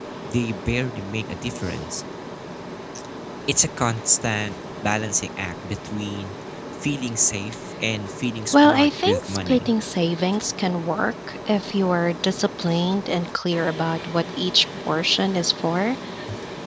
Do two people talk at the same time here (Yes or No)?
Yes